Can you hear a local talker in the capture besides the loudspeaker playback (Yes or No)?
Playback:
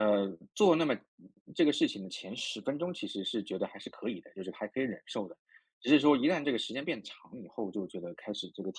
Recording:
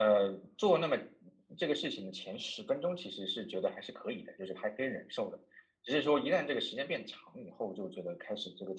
No